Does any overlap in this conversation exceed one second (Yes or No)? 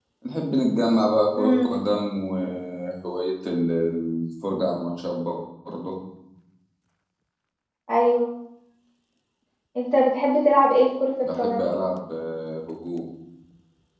No